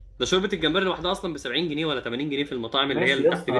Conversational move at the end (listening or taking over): taking over